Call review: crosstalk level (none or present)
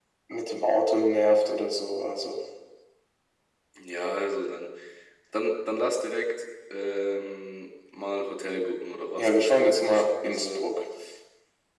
present